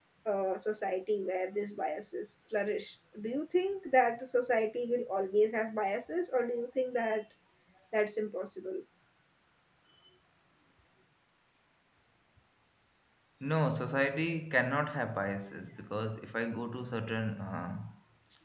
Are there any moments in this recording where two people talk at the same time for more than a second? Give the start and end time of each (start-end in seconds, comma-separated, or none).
none